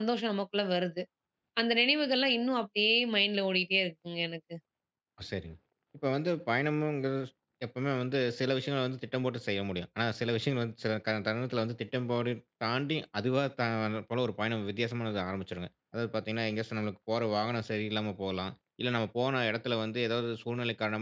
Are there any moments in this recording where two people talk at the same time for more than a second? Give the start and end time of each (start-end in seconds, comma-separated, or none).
none